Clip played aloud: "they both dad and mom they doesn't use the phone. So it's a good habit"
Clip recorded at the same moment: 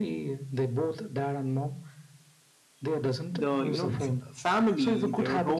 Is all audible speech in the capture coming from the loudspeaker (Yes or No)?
No